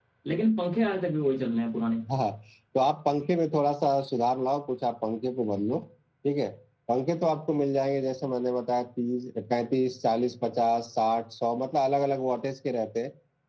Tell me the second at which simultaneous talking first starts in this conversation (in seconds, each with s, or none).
none